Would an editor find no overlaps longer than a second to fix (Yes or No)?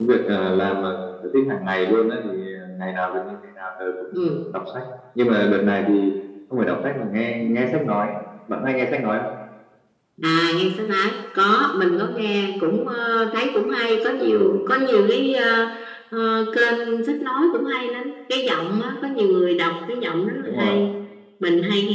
Yes